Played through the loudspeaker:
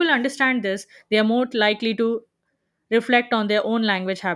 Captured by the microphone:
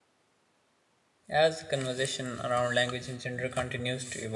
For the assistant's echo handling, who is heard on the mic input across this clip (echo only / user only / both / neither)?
user only